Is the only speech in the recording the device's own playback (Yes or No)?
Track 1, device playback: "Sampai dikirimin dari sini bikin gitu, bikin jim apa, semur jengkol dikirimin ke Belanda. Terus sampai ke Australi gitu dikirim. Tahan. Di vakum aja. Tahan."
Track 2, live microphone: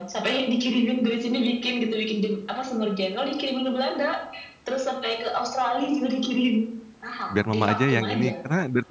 No